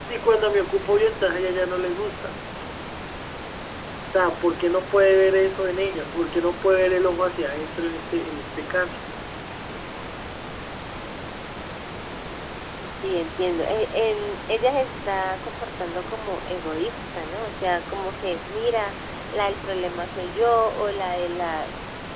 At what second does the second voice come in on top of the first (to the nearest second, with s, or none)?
none